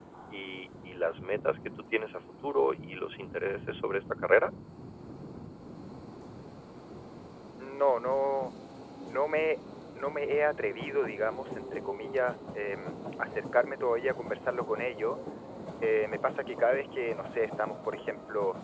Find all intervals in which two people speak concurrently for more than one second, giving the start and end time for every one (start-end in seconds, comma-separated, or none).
none